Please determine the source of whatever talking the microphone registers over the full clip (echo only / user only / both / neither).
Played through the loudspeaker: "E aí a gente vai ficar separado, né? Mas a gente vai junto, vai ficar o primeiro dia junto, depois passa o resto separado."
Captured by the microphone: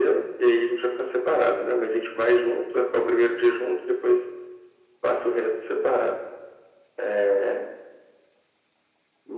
echo only